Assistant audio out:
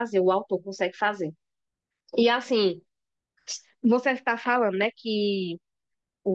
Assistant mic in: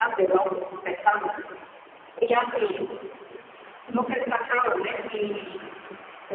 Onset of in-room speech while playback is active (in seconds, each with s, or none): none